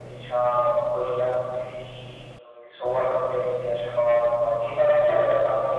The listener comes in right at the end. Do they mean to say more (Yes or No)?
No